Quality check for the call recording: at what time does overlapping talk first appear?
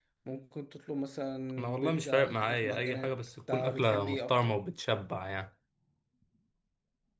1.6 s

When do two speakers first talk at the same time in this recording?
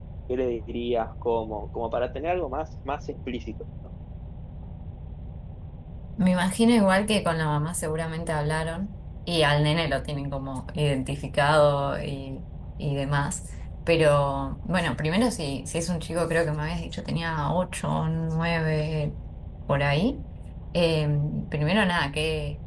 none

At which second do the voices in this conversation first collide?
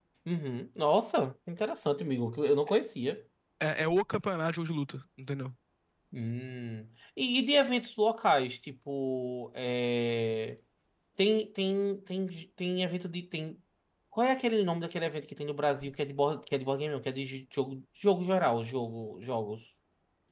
none

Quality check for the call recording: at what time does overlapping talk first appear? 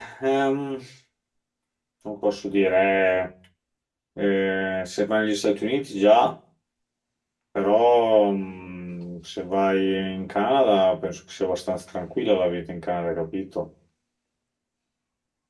none

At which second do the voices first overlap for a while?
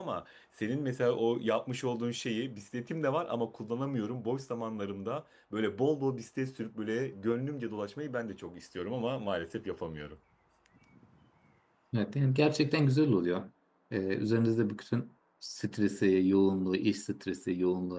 none

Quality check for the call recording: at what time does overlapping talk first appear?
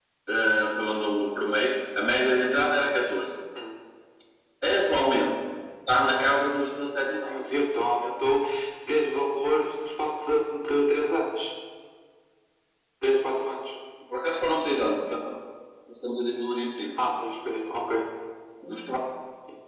none

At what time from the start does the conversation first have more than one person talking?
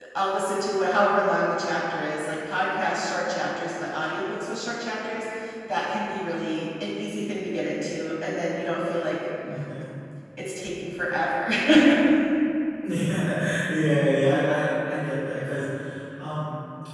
none

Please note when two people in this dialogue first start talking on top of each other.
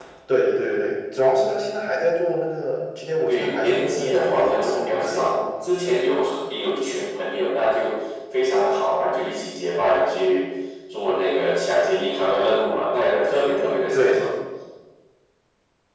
3.3 s

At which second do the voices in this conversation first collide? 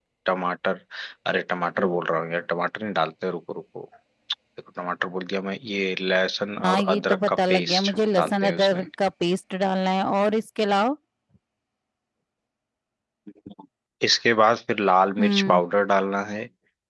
6.6 s

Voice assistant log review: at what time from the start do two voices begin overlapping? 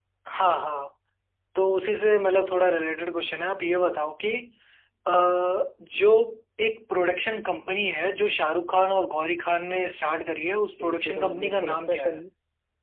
10.8 s

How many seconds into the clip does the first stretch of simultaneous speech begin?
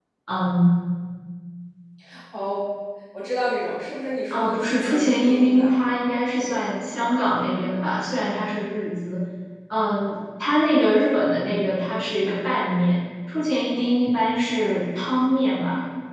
4.3 s

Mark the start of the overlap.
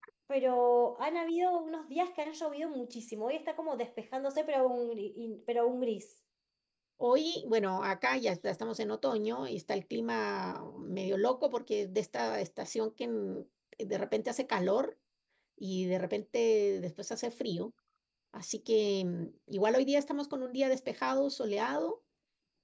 none

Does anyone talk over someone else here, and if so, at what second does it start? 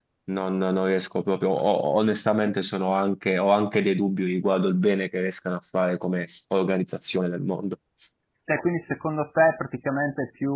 none

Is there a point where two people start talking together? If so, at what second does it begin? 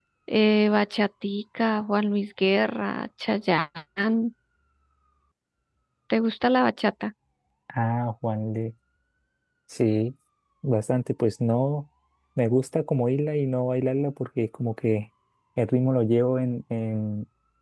none

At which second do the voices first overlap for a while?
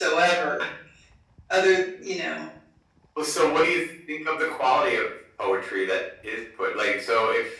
none

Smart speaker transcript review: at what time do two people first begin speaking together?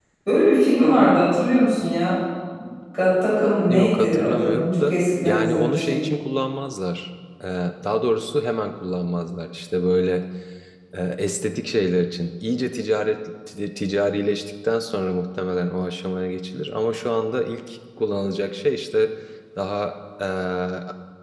3.7 s

